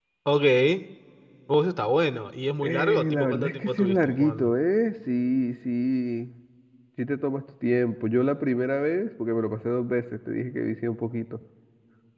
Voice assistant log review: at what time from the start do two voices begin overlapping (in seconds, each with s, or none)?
2.6 s